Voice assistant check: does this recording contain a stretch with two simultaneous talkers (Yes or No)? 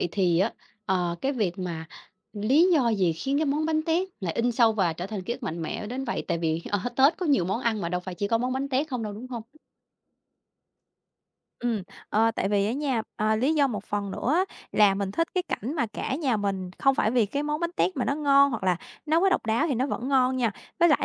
No